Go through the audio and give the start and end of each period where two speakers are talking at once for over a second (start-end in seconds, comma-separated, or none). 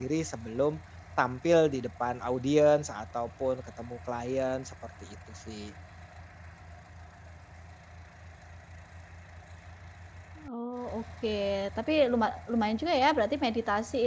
none